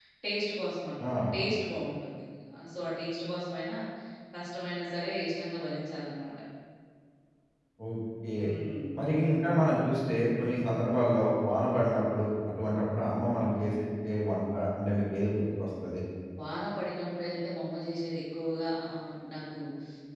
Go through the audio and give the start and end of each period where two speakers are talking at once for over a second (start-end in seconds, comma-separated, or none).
none